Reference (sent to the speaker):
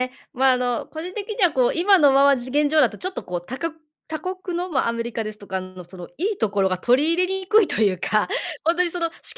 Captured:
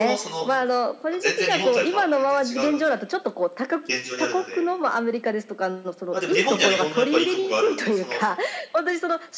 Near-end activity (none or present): present